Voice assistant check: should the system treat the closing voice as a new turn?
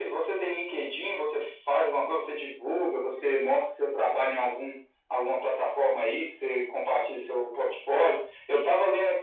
No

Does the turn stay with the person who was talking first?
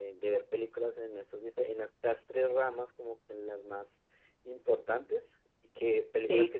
Yes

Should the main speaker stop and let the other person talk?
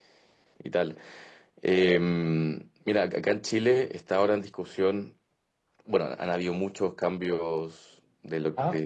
No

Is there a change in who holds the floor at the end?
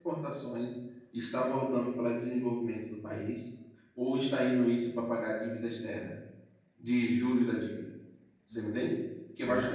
No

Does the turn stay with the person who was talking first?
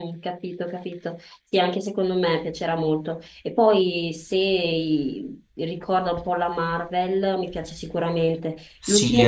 No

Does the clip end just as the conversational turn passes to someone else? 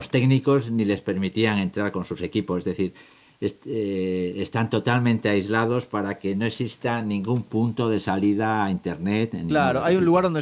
Yes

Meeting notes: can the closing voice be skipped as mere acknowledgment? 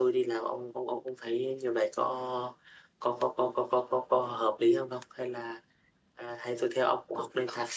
Yes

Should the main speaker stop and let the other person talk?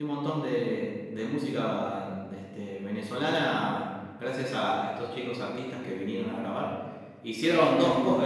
No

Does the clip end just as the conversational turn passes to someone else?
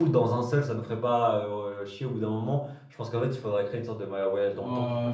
Yes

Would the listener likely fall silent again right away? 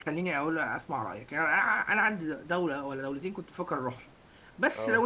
Yes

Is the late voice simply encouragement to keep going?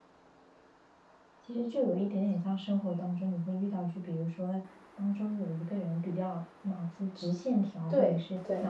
Yes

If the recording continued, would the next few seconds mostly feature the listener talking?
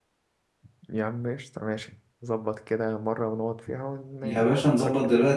Yes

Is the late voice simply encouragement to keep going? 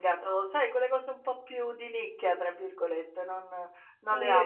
No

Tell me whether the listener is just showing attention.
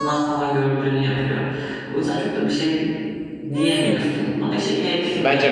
No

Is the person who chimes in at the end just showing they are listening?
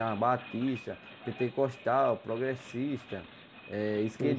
No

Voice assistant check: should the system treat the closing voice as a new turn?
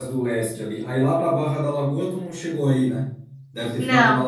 No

